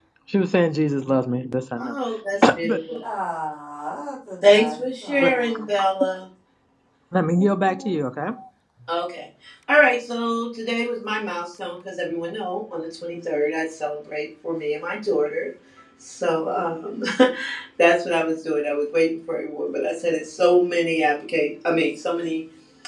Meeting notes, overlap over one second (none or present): present